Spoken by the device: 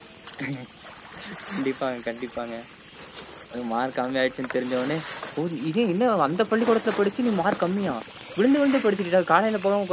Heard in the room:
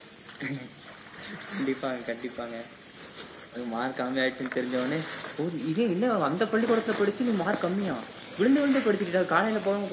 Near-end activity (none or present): none